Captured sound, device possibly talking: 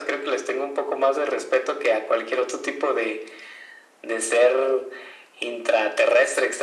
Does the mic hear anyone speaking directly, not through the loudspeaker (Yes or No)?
No